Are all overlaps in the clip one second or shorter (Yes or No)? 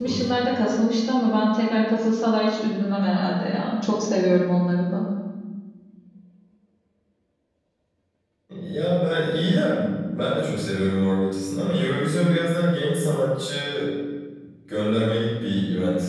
Yes